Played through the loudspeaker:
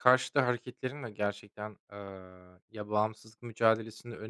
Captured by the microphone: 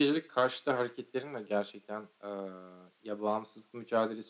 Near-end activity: none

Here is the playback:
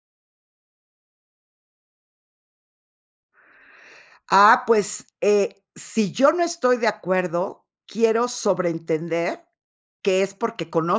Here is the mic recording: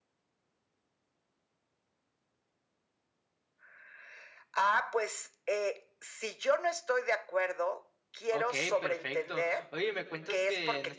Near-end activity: present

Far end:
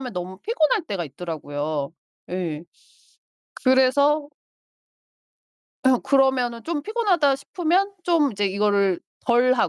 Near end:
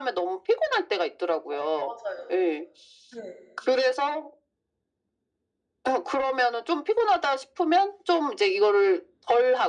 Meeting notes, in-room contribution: present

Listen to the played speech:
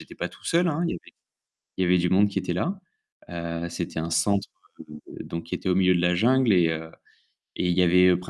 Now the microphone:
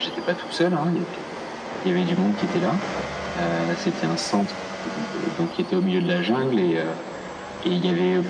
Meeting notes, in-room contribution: none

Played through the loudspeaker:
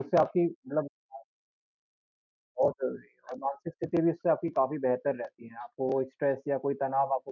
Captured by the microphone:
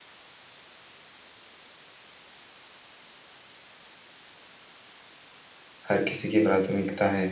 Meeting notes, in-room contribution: present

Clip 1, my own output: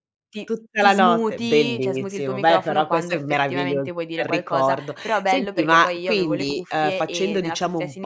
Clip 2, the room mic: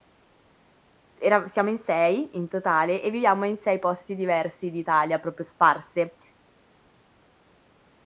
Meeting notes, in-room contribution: present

